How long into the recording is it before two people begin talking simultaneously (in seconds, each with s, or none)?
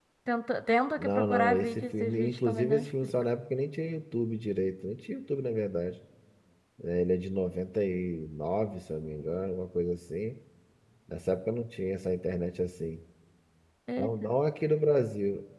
1.0 s